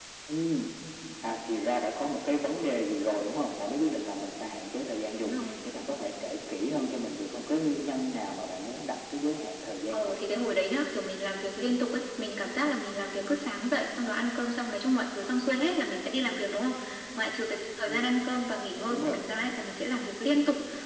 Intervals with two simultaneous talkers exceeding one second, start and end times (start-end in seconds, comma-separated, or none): none